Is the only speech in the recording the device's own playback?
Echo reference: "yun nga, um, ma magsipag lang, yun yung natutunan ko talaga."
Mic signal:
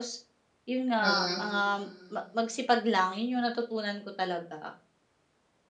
No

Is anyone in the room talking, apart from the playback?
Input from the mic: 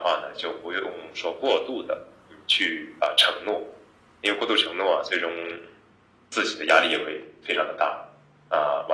No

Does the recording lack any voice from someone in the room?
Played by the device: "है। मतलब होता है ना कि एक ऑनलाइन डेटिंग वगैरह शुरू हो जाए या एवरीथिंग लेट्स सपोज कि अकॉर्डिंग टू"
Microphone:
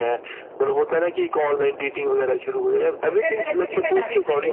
No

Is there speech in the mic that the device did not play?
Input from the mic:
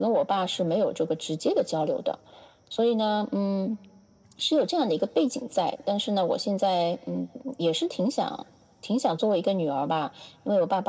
No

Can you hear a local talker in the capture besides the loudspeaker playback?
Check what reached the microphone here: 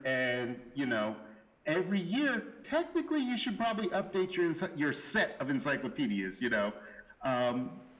No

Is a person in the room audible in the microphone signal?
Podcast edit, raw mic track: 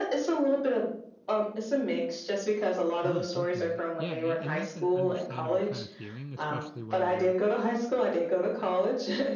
Yes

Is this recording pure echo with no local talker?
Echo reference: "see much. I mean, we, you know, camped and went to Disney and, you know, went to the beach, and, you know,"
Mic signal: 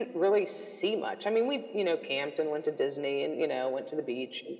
Yes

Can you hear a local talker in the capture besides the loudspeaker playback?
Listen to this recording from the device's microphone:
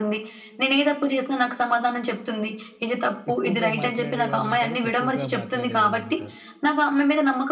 Yes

